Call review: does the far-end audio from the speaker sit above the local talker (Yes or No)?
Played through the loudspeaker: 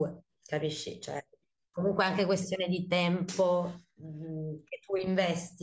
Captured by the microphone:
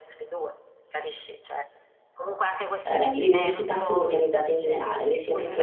No